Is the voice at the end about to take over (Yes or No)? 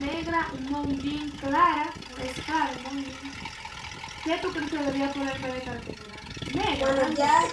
Yes